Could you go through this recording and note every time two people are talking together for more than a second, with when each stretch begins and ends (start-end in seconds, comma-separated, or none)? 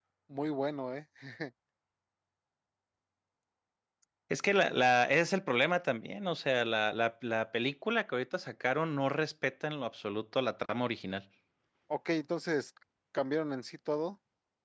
none